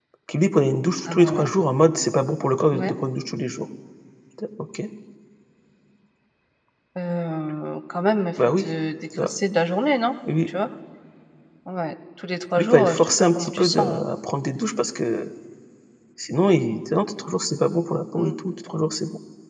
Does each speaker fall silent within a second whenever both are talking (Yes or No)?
No